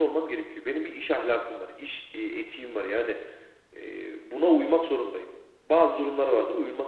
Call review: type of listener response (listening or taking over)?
listening